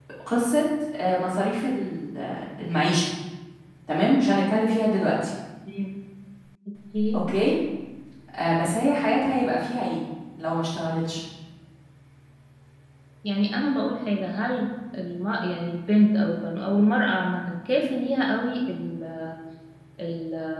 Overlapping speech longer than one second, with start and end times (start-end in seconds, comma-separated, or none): none